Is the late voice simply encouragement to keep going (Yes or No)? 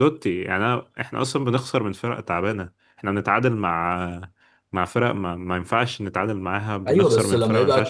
No